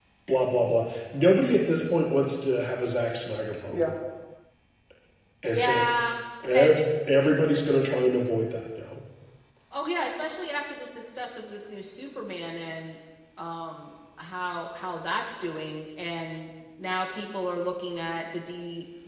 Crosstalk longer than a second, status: none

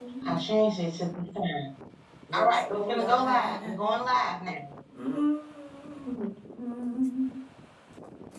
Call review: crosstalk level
present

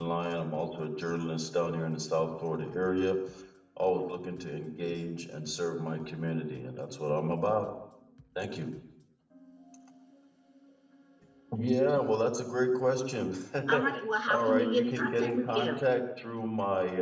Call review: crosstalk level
present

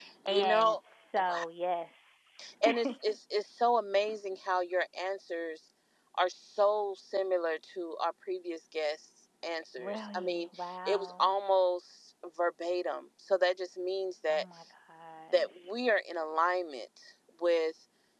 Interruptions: present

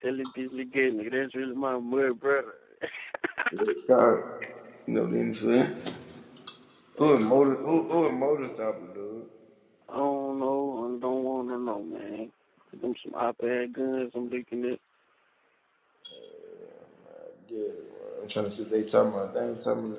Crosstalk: present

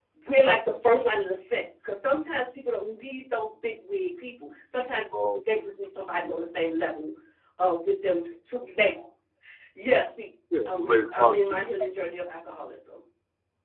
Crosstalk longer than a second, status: present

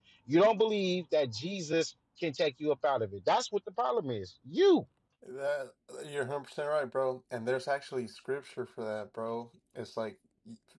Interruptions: none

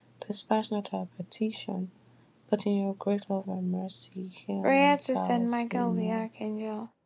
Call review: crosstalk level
present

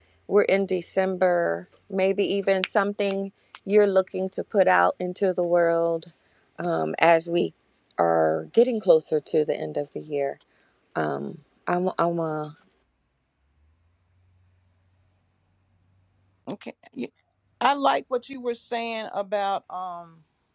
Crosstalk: none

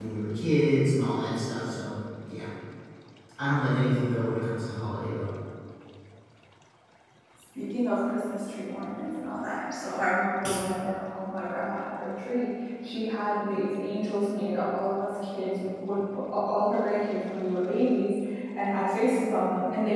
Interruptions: none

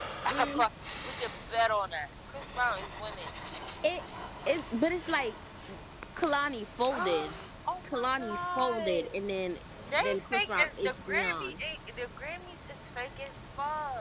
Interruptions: present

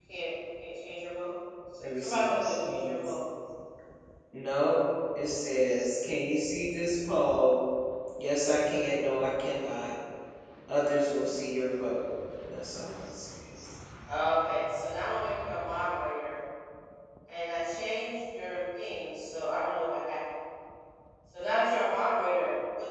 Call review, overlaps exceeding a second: present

